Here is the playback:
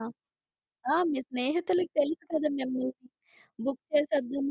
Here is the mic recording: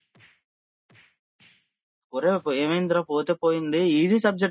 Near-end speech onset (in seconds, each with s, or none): 2.2 s